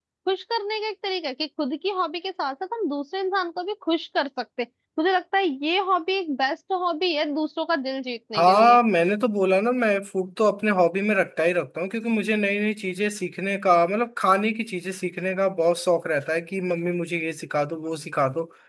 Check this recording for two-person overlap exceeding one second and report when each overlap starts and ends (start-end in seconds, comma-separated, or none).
none